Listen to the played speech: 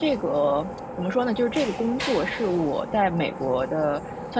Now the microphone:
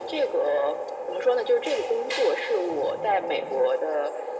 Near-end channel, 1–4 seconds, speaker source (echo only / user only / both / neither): echo only